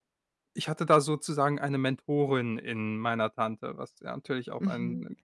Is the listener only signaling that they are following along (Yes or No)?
No